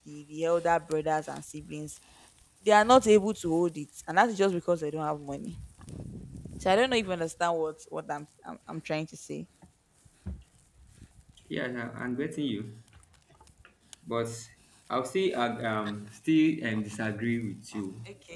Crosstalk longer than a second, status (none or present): none